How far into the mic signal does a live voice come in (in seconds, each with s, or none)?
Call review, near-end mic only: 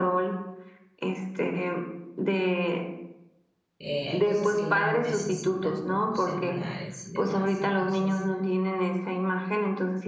3.8 s